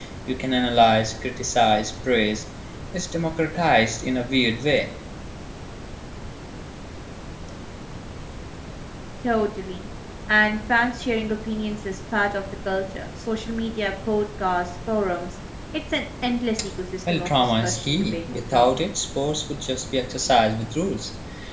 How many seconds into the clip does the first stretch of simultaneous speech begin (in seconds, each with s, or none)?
17.1 s